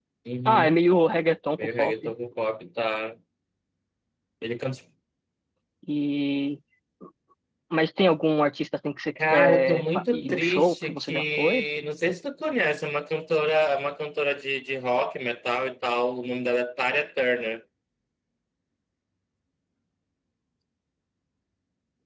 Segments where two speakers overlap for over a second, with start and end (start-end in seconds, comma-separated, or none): 9.3-11.7